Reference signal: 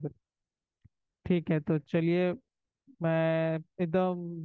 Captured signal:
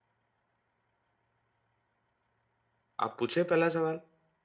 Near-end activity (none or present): present